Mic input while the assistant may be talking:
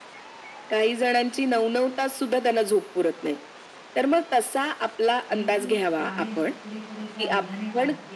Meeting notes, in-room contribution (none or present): present